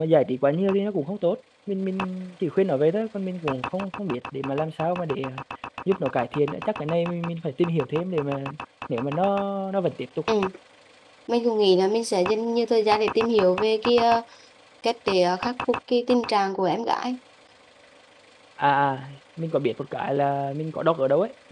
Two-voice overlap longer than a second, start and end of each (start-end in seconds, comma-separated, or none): none